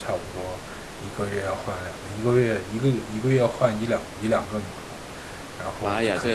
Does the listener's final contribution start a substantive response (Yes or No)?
Yes